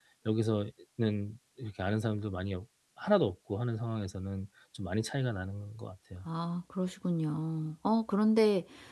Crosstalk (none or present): none